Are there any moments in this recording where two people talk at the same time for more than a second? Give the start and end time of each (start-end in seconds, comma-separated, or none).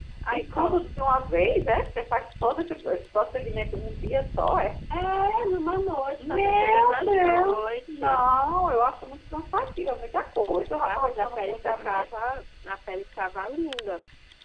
6.2-8.3, 10.8-12.0